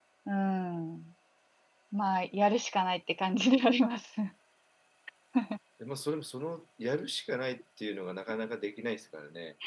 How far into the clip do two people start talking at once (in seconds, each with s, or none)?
none